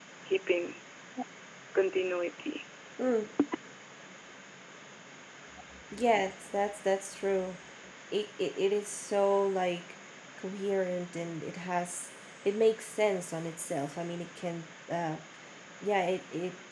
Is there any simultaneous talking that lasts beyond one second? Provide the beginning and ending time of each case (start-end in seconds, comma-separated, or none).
none